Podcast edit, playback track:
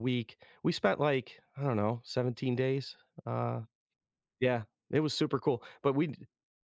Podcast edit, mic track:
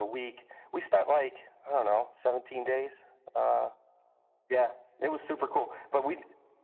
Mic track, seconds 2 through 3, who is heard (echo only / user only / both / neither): echo only